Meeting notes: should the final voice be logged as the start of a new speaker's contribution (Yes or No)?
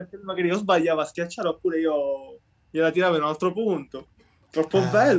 Yes